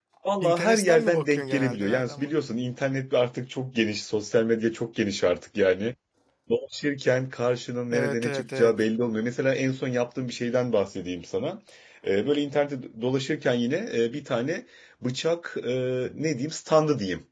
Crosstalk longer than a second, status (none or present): present